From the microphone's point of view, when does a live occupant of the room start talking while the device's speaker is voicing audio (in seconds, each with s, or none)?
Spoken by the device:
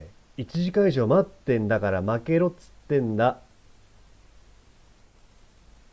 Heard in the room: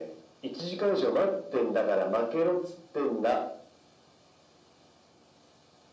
none